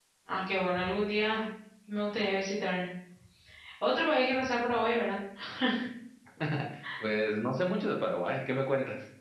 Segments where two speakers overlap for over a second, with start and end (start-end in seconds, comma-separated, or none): none